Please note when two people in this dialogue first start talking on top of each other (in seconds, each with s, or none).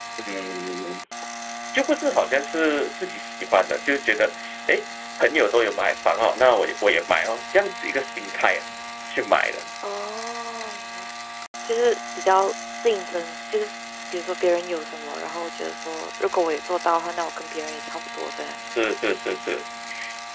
none